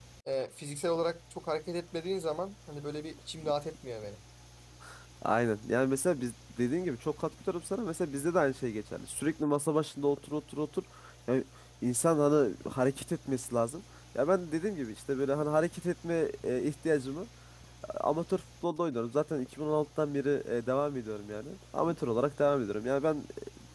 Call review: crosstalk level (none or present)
none